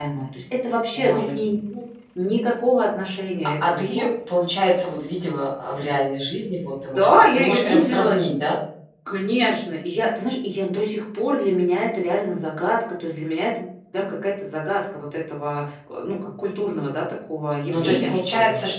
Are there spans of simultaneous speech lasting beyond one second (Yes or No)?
Yes